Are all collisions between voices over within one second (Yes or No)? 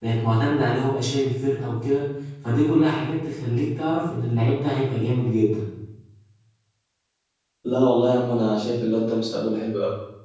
Yes